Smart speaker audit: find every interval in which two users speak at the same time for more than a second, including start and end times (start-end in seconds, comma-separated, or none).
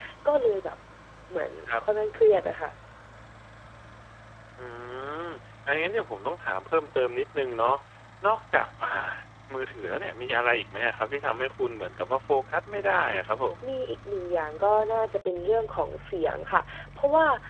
none